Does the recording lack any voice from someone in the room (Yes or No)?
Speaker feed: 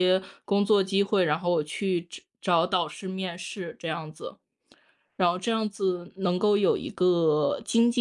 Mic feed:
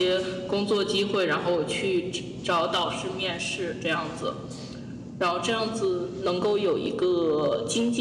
Yes